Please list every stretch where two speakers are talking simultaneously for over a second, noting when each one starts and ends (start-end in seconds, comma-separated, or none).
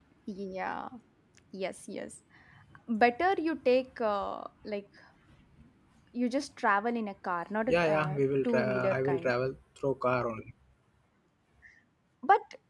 7.7-9.3